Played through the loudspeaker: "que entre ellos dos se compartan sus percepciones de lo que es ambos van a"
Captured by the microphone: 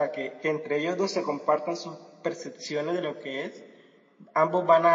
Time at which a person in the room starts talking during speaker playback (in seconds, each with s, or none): none